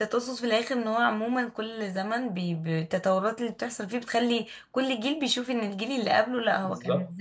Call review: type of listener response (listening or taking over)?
taking over